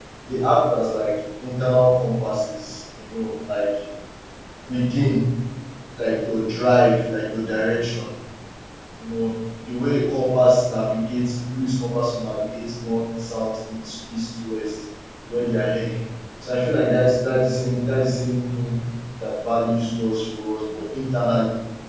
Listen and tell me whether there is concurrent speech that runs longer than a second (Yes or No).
No